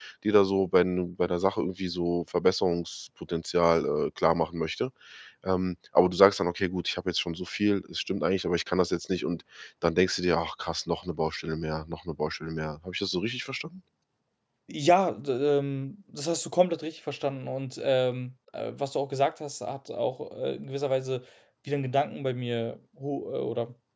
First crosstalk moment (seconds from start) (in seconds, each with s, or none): none